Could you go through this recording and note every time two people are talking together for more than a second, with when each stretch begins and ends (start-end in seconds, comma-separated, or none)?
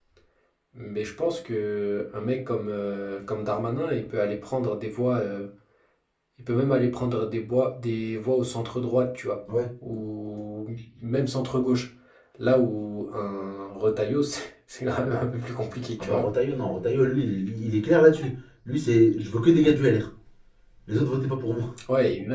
none